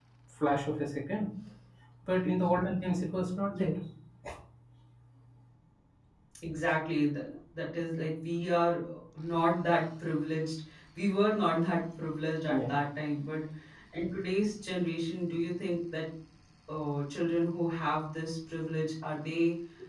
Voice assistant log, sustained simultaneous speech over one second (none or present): none